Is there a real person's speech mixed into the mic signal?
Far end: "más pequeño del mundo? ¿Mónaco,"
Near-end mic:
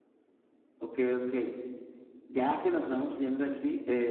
Yes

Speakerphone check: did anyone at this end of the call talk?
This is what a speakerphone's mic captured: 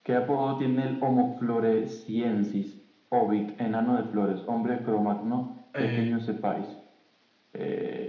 Yes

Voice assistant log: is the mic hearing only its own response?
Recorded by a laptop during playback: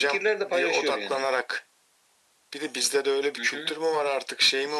Yes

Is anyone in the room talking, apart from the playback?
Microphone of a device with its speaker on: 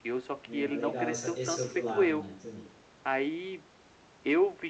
Yes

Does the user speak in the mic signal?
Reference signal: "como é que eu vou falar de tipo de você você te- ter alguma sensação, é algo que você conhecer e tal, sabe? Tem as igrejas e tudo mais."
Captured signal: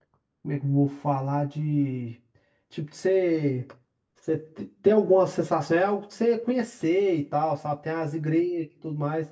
No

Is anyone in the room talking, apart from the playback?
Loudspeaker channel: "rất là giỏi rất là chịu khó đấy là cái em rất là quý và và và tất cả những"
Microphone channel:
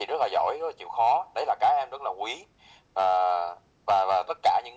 No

